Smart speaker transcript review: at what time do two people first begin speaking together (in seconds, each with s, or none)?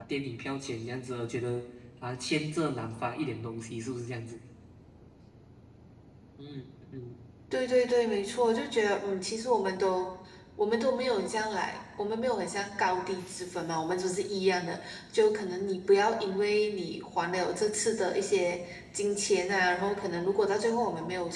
none